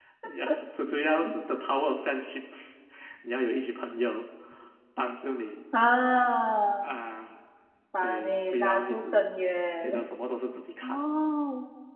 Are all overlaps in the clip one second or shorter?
No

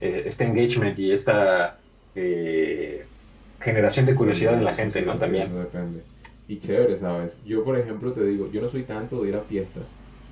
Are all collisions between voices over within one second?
No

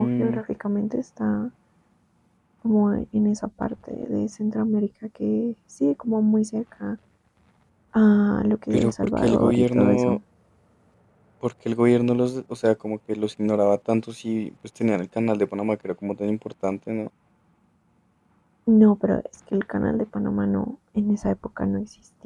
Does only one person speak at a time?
No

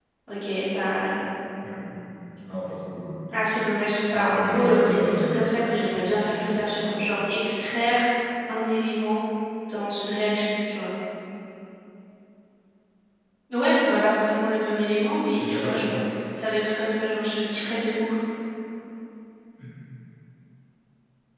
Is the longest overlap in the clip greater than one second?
Yes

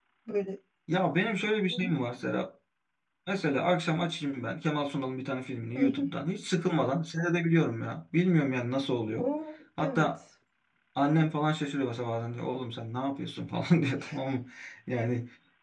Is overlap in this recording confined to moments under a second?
Yes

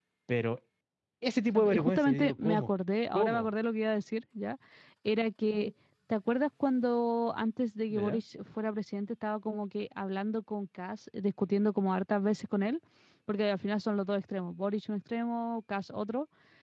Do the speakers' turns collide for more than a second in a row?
Yes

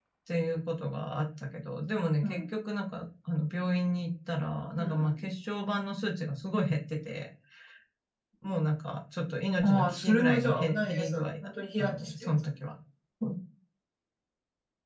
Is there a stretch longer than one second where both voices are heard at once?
Yes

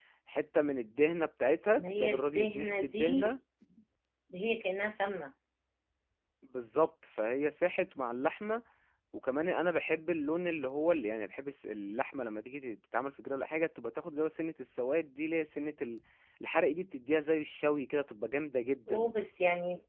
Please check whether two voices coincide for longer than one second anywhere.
Yes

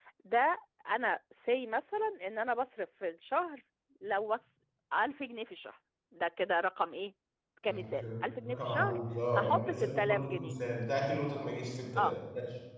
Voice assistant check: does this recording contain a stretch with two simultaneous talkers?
Yes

